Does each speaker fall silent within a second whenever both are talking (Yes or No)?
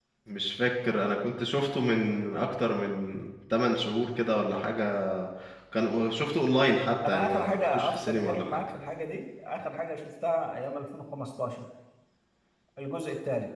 No